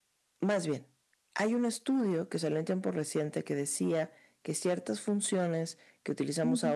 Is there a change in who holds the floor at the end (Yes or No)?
No